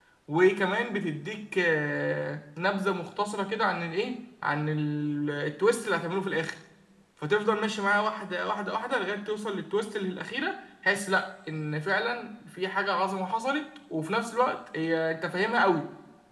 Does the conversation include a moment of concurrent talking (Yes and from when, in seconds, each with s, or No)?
No